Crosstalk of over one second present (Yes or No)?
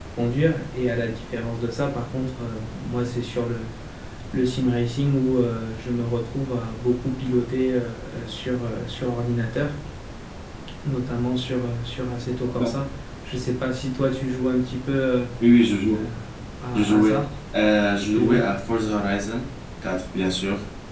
No